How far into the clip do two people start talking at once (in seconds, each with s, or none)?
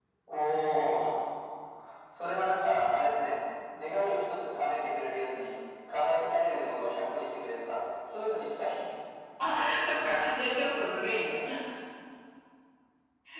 none